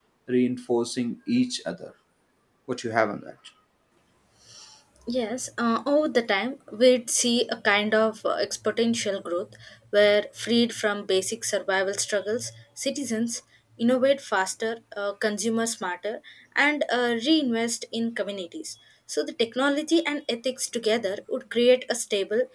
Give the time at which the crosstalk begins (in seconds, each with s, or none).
none